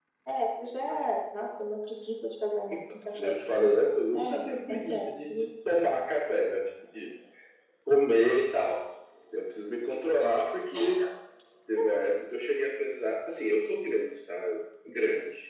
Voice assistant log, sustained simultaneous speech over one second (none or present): present